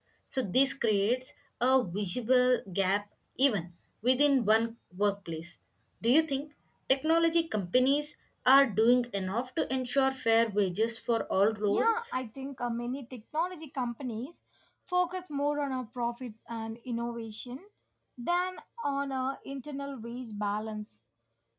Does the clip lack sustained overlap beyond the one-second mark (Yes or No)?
Yes